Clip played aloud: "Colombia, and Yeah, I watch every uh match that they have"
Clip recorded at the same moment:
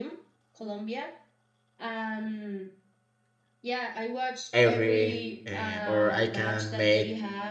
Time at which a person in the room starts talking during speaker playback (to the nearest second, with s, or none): 5 s